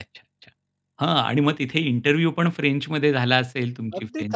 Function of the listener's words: taking over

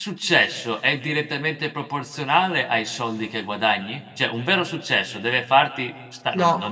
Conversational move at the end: listening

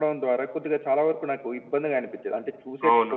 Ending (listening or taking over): taking over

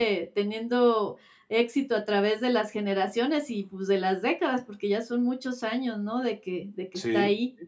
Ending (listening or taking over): taking over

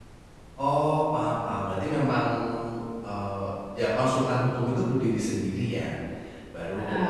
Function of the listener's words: listening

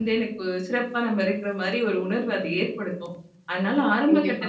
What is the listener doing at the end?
listening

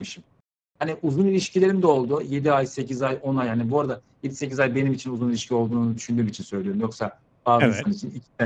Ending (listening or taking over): listening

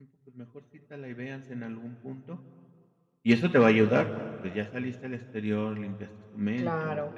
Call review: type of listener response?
taking over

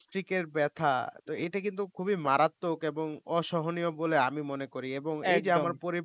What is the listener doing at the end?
listening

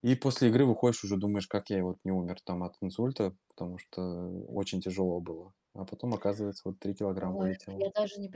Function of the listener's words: taking over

